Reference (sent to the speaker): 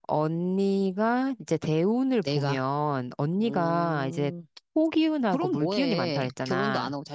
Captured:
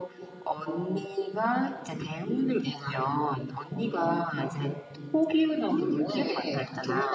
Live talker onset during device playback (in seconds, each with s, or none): none